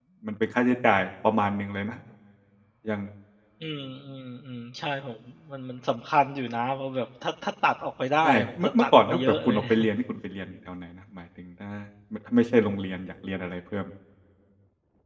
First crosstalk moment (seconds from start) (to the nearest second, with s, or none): 8 s